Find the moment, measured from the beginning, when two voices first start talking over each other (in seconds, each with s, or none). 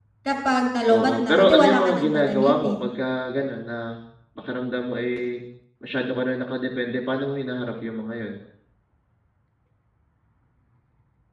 0.9 s